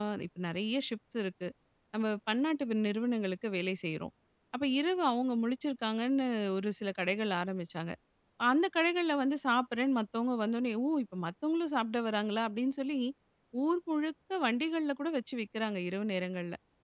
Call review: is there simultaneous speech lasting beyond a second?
No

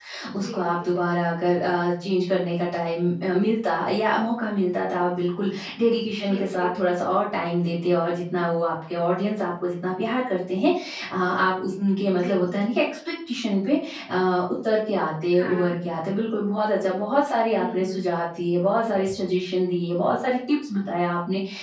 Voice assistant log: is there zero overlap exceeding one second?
Yes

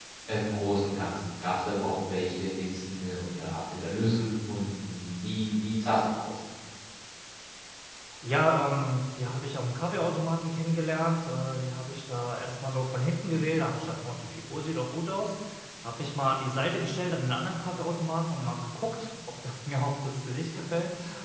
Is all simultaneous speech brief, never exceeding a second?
Yes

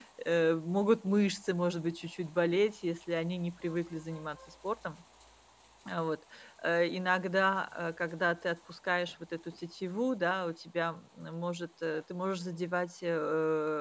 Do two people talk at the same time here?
No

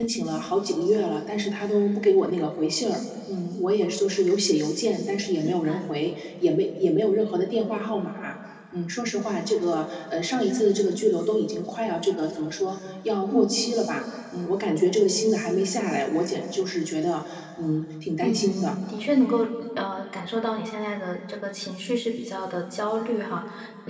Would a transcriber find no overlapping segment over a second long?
Yes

